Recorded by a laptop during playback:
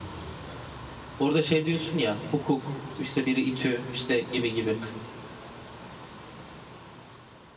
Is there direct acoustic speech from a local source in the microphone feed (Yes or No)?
Yes